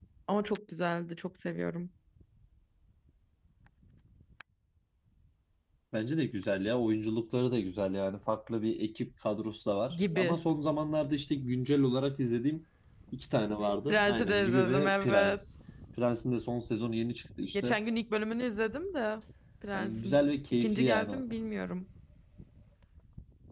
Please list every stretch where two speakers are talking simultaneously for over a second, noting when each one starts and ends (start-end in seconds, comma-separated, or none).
13.9-15.4, 19.7-21.2